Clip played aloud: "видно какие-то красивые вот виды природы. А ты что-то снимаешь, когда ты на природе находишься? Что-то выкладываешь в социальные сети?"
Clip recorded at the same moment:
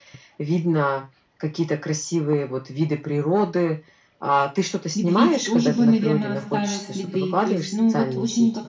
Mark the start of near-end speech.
5.0 s

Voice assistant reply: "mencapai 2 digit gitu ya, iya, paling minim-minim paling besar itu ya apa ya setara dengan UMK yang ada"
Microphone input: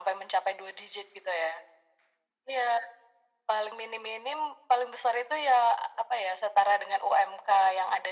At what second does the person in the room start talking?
none

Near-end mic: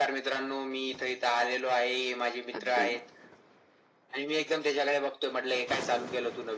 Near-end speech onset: 2.5 s

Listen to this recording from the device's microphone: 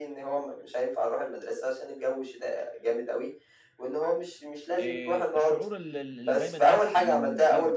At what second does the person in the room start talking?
4.8 s

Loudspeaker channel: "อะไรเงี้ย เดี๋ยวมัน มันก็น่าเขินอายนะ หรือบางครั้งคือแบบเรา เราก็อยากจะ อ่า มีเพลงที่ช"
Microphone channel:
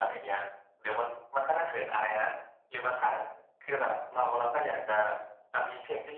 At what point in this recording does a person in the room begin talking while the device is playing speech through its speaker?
none

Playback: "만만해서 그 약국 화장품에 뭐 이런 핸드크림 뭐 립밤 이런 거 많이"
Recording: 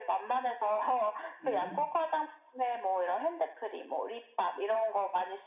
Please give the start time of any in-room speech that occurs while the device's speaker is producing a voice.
1.4 s

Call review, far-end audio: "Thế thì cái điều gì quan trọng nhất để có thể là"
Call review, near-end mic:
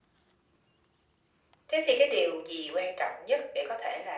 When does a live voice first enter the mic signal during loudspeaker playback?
none

